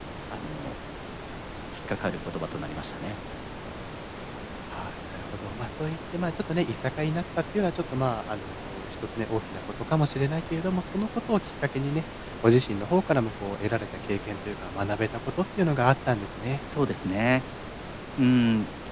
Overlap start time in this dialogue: none

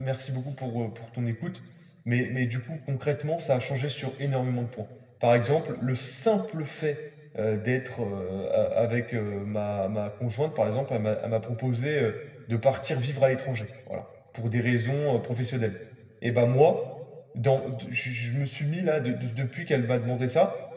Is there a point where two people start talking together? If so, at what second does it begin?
none

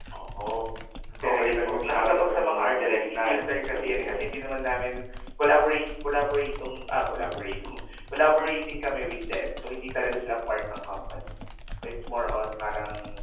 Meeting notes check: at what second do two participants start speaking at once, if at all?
1 s

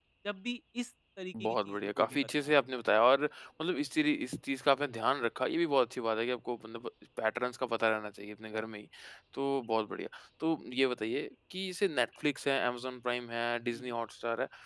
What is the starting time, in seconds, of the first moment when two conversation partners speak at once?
1 s

